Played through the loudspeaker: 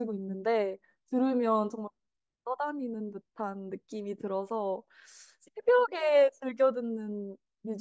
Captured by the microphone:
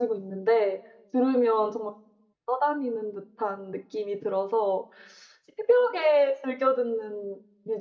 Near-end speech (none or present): none